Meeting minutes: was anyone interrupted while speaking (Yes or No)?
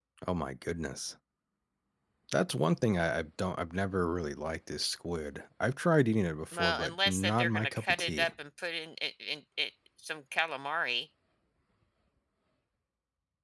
Yes